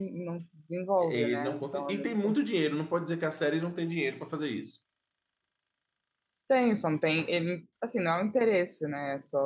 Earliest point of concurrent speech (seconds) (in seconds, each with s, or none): 1.0 s